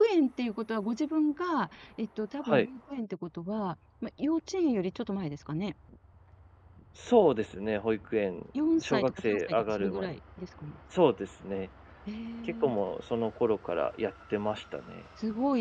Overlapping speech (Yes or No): Yes